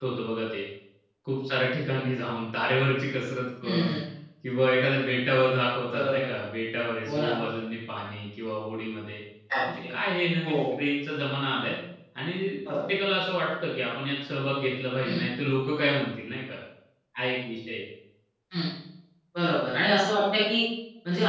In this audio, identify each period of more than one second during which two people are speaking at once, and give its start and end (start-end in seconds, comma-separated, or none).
none